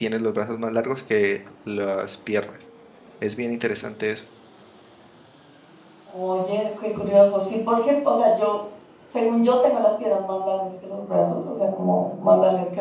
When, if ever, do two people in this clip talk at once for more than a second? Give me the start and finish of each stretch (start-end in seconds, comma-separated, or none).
none